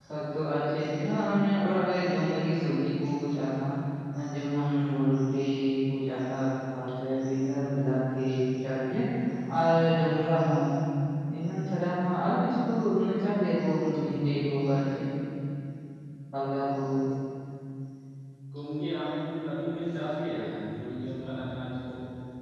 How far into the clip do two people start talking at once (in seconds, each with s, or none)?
none